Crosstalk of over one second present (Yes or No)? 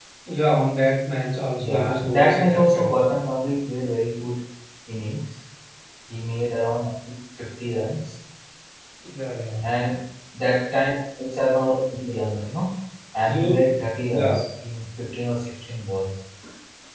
Yes